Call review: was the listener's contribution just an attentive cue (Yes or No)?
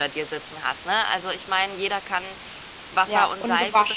No